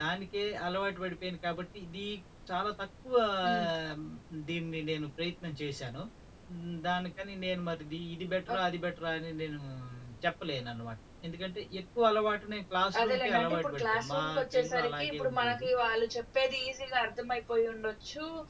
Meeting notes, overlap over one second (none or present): present